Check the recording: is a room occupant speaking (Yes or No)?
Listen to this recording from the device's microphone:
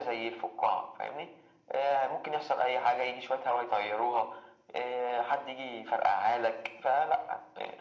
No